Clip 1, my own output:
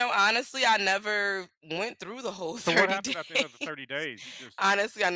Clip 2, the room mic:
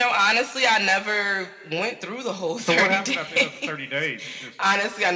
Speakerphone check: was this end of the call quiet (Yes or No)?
Yes